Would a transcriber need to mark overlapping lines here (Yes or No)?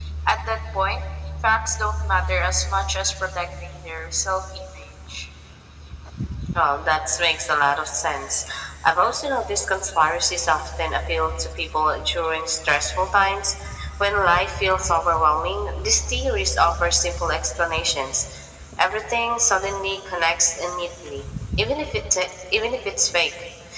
No